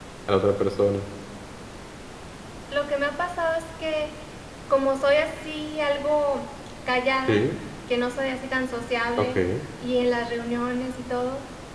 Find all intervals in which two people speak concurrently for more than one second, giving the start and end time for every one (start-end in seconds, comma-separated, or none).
none